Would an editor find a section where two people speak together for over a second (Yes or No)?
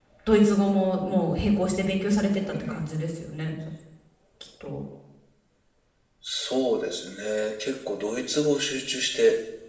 No